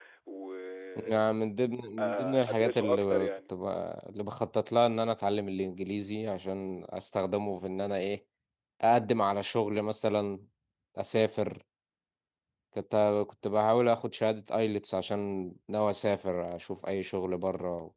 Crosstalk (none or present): present